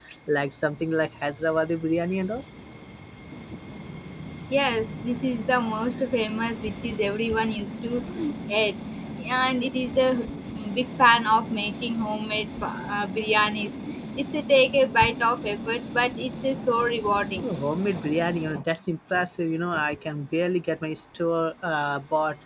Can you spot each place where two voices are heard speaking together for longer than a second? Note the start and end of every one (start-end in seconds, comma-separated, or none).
none